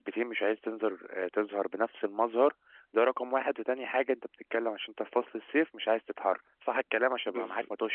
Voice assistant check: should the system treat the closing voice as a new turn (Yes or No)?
Yes